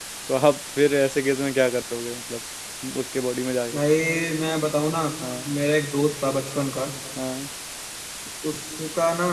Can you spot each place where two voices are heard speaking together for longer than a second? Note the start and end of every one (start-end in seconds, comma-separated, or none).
none